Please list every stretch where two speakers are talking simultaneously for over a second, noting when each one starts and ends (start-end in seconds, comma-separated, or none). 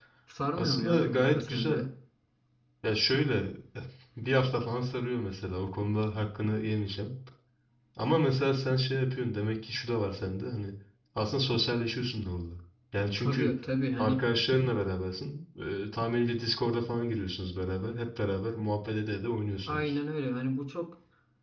0.5-1.8